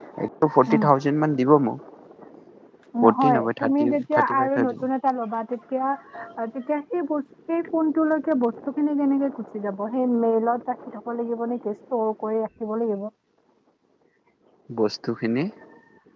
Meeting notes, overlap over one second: present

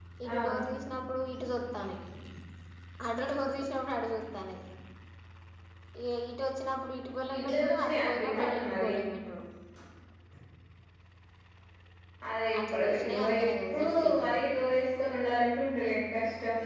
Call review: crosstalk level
present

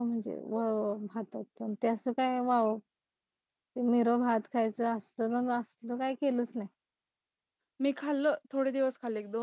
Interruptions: none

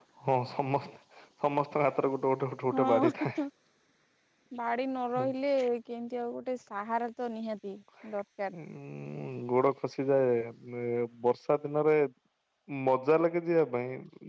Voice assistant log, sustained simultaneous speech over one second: none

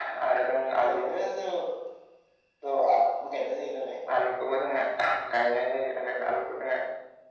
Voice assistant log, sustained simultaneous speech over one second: none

